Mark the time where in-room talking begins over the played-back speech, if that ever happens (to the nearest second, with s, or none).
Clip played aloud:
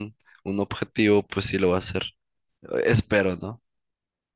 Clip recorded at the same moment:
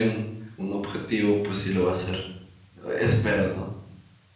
none